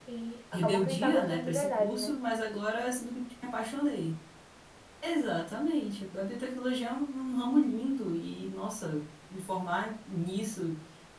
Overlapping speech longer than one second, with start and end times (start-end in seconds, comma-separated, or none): 0.5-2.2